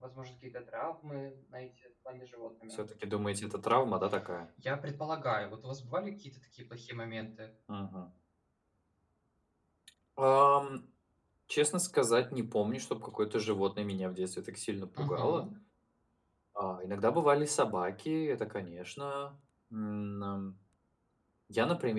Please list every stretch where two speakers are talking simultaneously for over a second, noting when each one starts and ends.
none

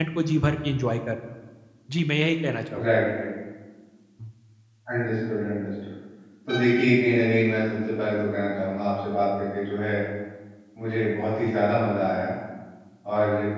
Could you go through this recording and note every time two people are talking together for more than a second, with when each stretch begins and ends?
none

